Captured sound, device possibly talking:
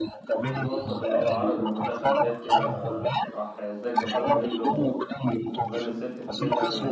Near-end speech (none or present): present